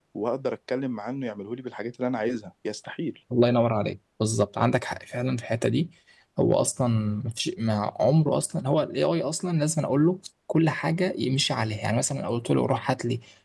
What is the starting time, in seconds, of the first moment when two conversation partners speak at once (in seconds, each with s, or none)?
none